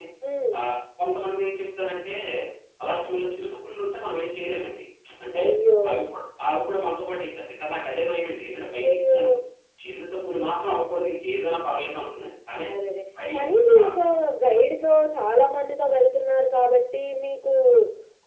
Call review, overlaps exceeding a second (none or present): none